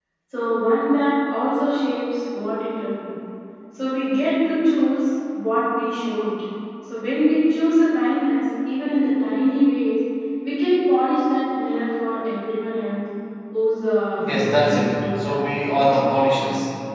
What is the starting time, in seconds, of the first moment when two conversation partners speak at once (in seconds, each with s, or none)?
14.2 s